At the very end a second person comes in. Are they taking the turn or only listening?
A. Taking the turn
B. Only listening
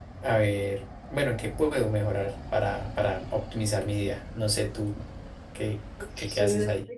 A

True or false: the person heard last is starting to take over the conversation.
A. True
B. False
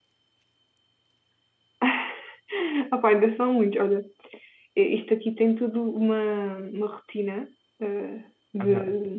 B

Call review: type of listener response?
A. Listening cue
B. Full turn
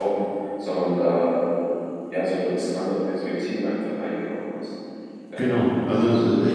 B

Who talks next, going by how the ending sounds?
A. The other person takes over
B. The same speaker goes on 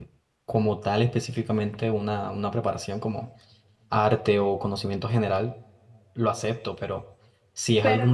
B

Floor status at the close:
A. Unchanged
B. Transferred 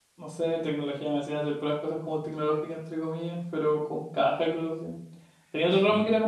A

